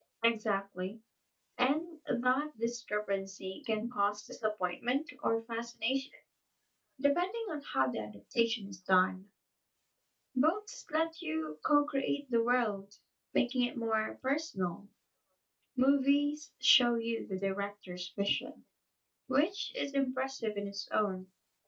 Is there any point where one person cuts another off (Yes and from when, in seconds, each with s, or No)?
No